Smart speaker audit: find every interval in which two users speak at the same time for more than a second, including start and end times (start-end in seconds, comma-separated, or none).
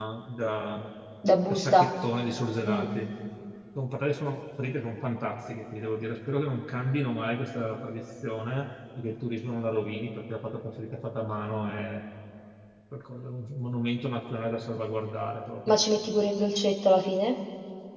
none